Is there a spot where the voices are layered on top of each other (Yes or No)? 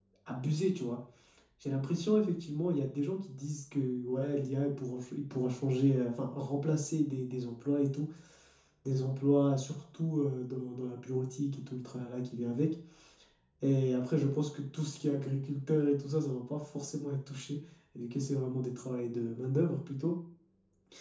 No